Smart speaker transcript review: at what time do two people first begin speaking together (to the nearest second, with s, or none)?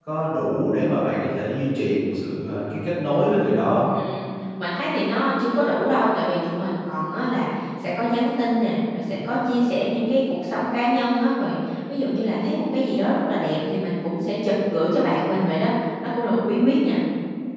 none